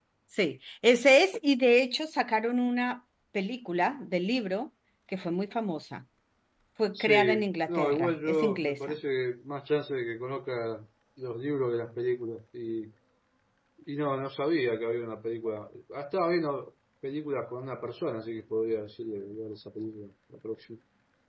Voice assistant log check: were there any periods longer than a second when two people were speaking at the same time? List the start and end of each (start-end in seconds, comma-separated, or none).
6.9-8.9